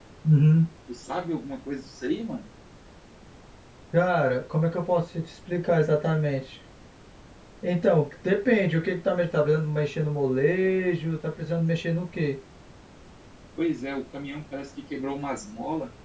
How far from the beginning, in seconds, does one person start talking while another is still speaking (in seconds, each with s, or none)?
none